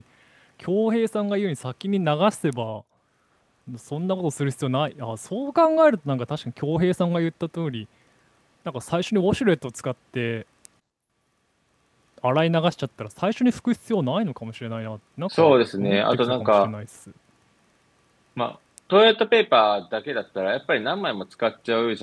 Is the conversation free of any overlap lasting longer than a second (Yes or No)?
No